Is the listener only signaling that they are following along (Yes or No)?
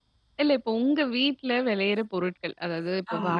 Yes